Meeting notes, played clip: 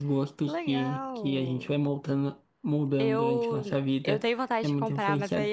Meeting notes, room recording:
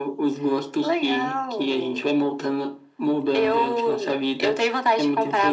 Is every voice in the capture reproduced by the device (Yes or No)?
Yes